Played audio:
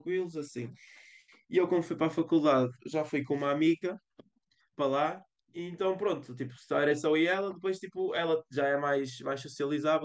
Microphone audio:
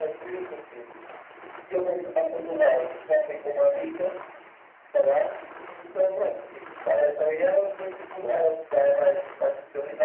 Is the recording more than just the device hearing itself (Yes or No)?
No